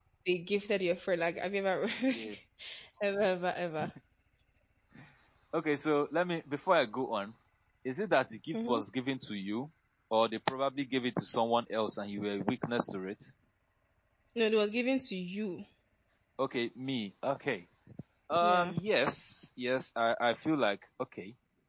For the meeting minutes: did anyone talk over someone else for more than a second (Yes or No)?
No